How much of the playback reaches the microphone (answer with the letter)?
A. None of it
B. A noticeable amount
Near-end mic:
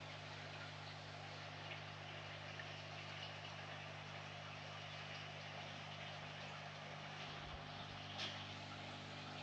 A